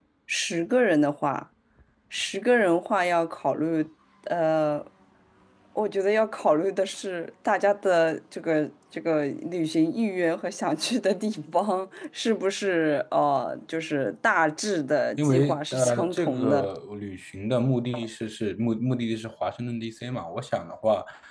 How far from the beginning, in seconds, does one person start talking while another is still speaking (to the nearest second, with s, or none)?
15 s